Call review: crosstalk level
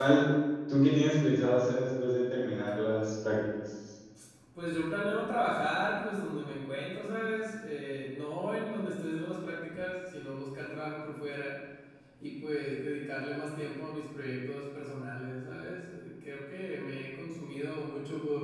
none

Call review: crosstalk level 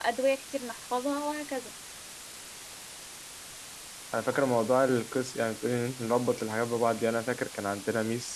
none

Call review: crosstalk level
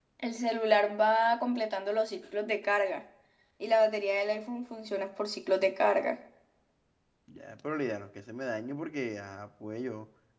none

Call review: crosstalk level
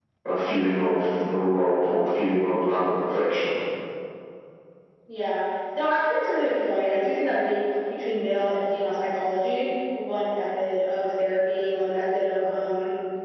none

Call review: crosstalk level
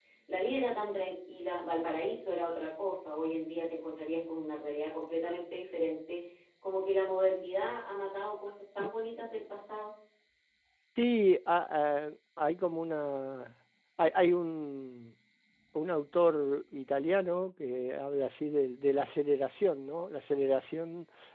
none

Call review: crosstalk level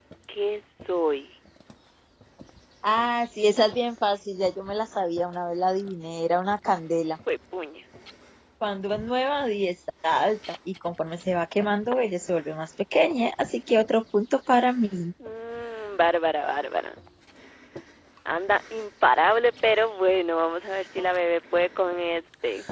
none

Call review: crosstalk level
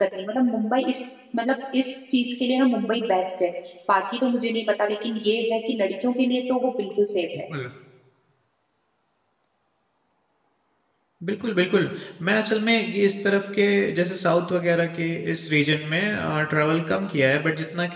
none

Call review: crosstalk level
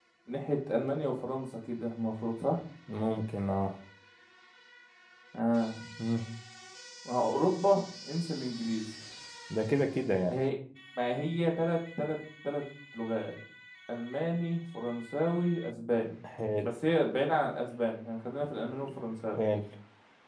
none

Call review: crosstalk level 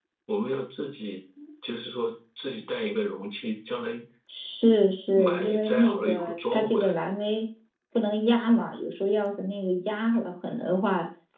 present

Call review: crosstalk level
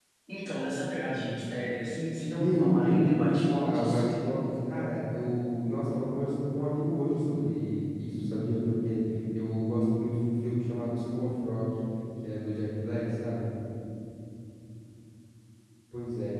present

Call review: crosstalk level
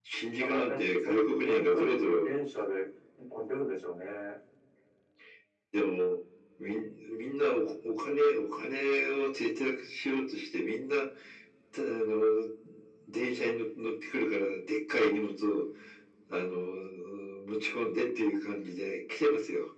present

